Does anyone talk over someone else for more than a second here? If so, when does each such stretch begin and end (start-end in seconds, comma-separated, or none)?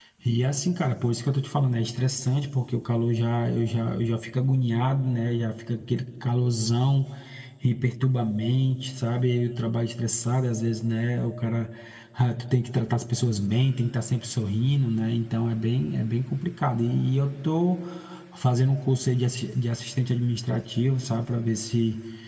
none